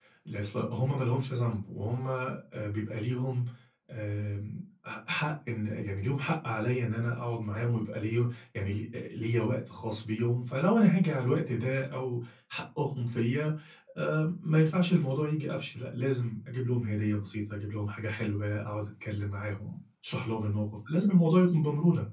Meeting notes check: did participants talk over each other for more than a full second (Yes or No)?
No